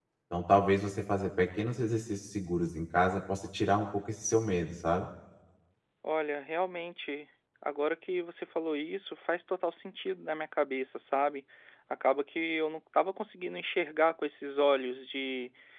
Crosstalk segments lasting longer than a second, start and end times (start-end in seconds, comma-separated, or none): none